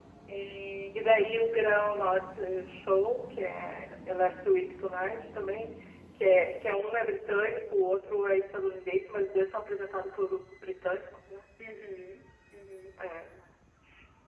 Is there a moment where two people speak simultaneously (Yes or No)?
No